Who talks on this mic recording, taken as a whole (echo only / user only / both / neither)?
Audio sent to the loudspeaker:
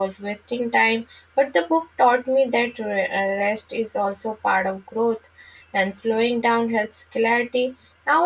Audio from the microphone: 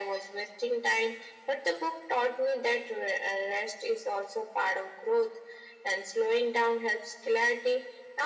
echo only